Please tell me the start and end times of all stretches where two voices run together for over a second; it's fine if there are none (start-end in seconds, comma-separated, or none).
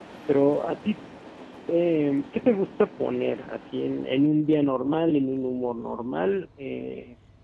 none